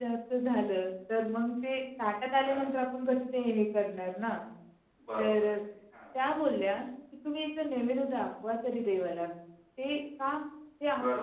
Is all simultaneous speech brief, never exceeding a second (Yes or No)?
Yes